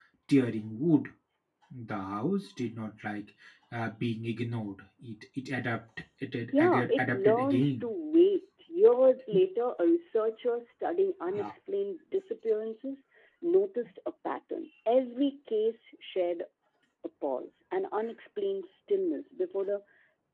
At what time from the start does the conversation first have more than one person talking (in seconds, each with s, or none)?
6.5 s